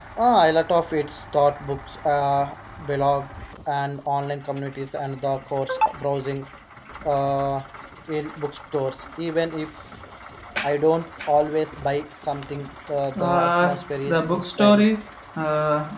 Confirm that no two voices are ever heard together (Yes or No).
No